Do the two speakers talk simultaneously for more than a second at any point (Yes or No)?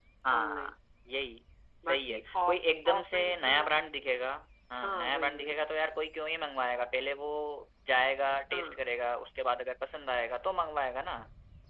Yes